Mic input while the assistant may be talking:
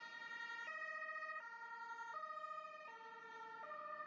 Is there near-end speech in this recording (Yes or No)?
No